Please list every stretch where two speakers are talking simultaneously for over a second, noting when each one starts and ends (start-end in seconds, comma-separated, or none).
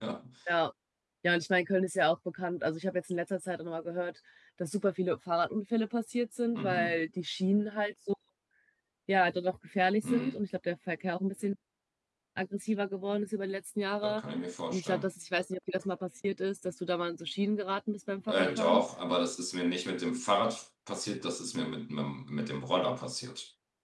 none